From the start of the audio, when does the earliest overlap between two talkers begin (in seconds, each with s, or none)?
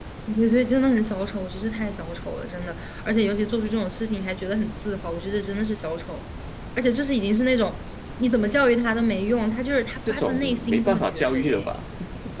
10.1 s